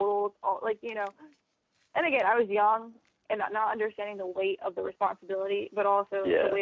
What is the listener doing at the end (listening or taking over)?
listening